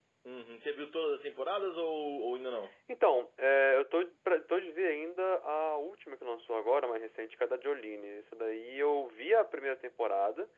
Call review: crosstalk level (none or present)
none